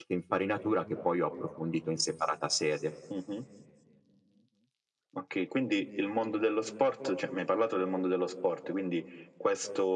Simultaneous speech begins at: none

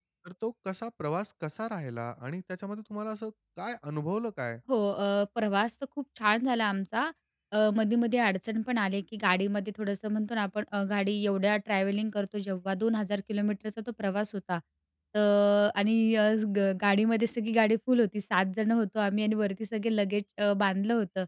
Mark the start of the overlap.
none

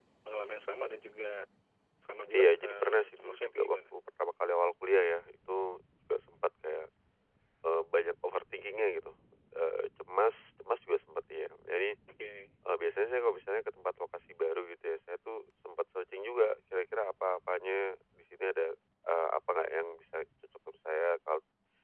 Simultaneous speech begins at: 2.3 s

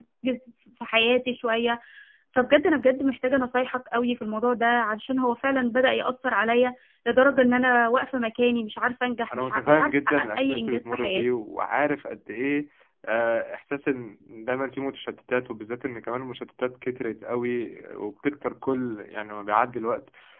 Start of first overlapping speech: 9.3 s

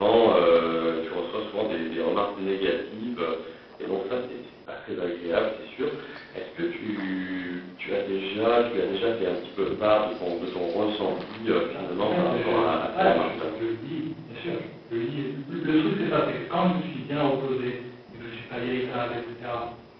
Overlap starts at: 11.7 s

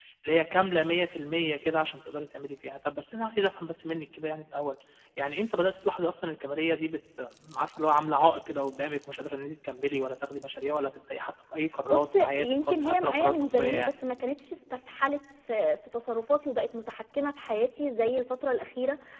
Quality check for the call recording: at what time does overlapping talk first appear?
11.9 s

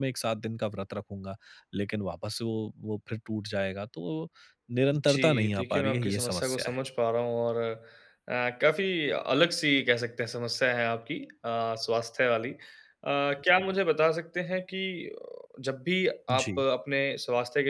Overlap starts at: 5.1 s

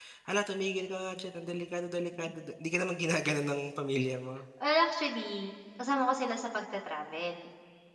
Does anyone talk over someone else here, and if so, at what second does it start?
none

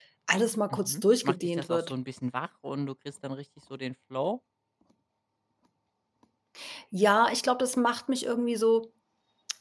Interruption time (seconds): 0.7 s

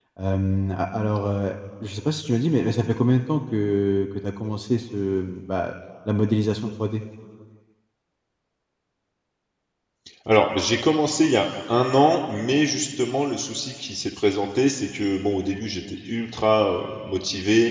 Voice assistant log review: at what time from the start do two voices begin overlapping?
none

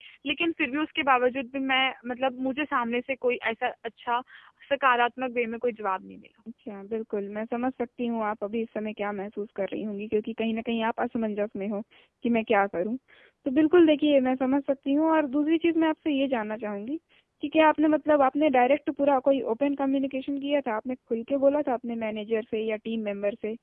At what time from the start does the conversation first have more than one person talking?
none

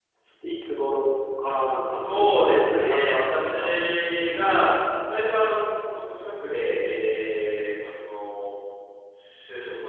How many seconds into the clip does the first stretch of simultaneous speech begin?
1.9 s

